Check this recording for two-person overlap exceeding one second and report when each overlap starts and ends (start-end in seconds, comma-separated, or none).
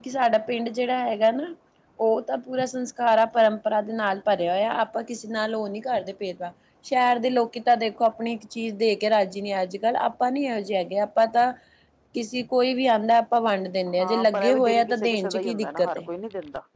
14.0-16.1